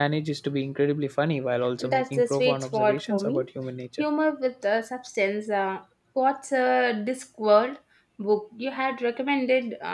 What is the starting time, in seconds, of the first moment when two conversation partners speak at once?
1.8 s

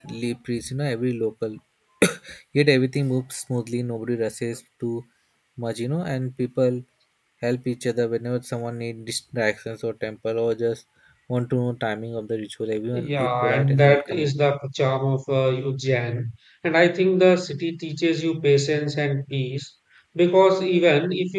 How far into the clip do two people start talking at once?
12.9 s

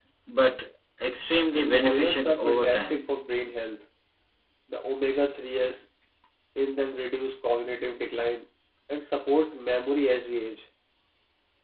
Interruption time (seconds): 1.5 s

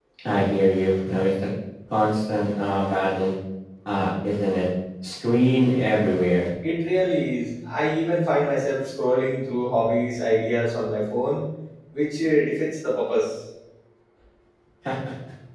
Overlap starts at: none

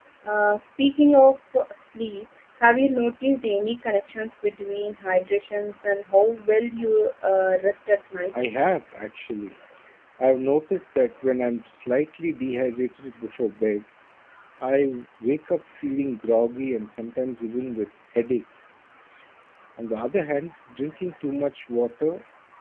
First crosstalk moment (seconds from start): none

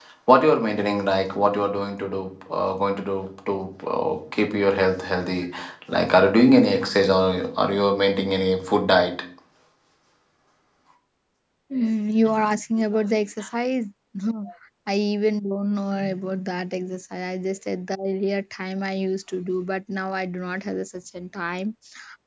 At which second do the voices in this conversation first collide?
none

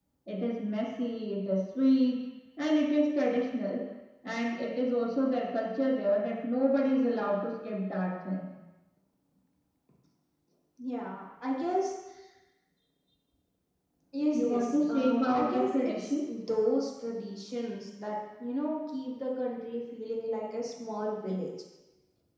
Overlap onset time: 14.3 s

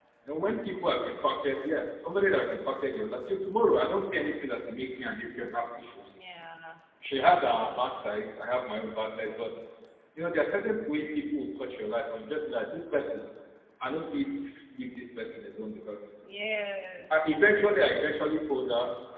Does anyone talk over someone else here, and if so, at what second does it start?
none

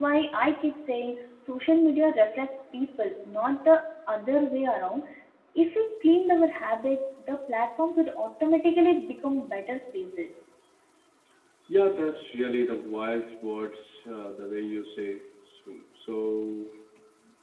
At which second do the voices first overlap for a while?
none

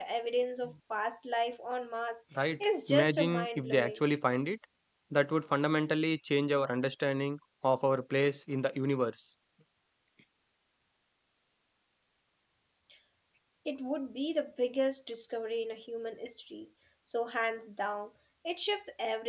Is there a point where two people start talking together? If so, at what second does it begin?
2.4 s

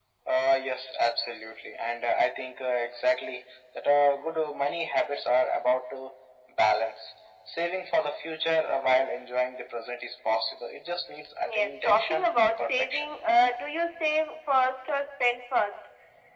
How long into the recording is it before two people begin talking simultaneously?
11.4 s

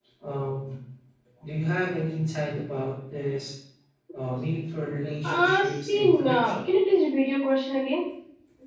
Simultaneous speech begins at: 5.2 s

